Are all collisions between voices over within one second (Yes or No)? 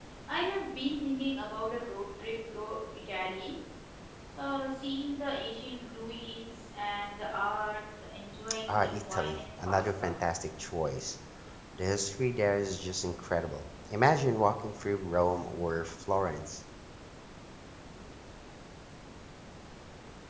No